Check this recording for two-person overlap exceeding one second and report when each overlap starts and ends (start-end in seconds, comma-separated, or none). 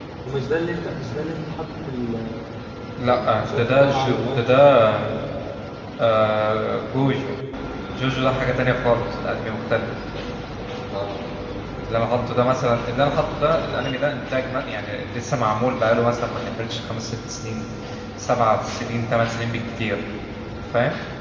3.1-4.6